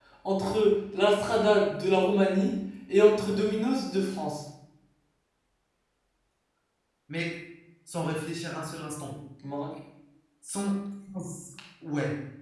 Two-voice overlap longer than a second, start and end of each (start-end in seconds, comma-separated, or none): none